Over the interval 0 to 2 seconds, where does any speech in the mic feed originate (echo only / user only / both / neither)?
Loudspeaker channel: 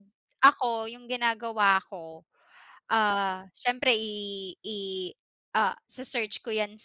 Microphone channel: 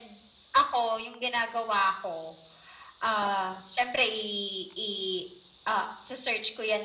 echo only